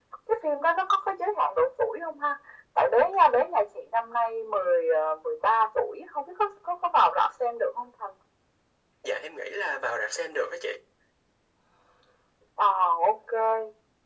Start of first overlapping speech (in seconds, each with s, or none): none